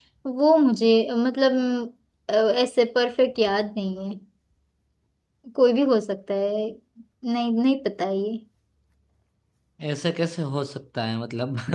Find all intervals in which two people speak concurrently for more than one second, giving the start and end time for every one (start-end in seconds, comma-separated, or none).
none